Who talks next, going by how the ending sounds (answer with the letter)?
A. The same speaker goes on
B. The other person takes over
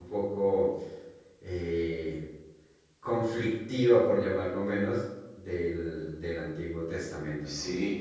B